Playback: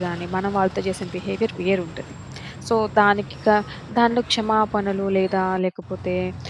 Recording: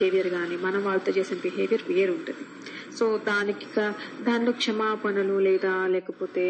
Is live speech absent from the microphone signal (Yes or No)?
Yes